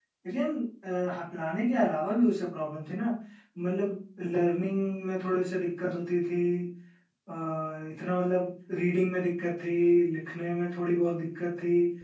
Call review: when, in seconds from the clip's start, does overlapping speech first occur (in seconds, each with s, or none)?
none